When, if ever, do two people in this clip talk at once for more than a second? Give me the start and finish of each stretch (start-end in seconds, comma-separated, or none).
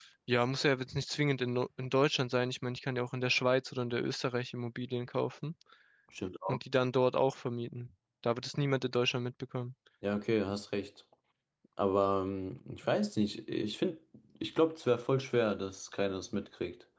none